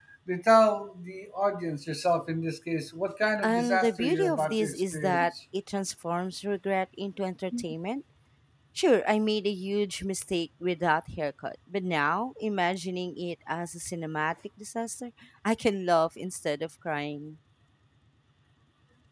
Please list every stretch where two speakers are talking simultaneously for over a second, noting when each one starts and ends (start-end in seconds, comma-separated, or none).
3.4-5.3